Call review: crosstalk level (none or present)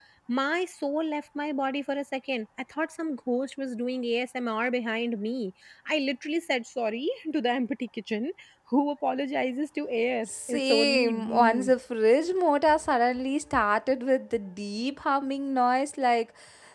present